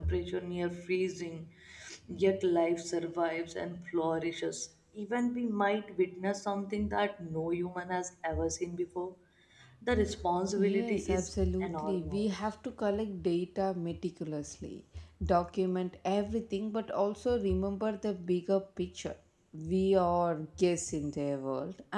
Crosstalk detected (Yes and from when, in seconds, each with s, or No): Yes, from 10.6 s